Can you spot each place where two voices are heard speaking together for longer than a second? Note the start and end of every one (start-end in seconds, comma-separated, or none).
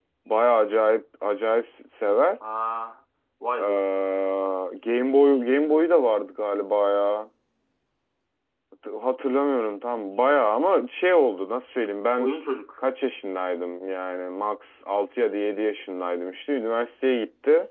none